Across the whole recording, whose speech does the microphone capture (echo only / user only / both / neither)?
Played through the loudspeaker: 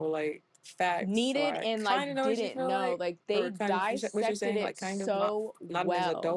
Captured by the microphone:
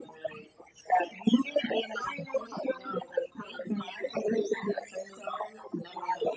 echo only